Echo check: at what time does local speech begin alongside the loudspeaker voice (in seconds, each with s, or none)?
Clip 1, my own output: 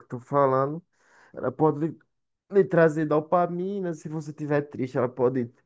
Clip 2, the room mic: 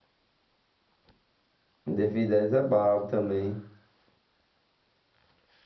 1.9 s